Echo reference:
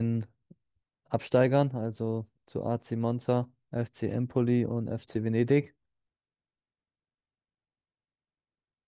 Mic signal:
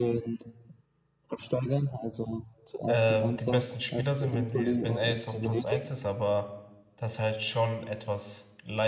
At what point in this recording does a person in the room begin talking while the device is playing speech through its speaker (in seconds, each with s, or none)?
2.9 s